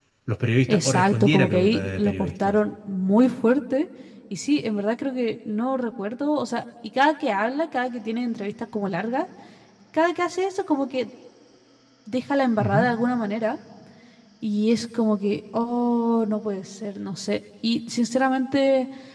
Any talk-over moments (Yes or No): Yes